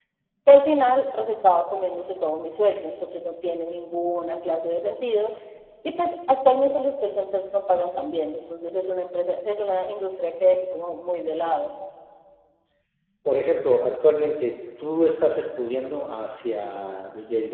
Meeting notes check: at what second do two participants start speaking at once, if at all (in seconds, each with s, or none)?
none